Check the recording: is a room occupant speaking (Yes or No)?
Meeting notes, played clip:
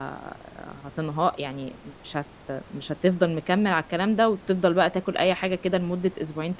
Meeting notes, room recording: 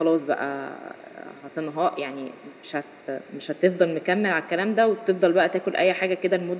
No